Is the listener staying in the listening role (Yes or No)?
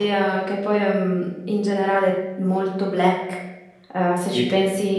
Yes